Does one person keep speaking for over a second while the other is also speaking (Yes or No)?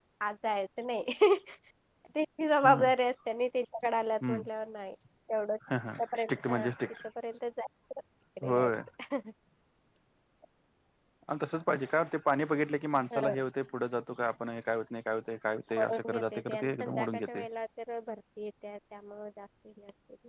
Yes